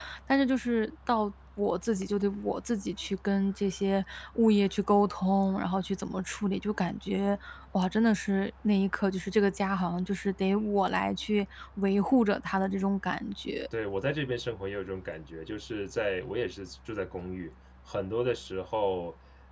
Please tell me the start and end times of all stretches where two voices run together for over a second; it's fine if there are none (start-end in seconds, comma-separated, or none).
none